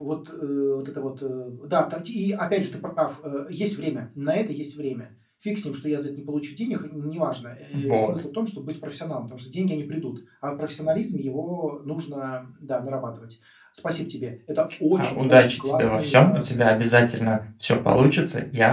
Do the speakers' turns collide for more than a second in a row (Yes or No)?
Yes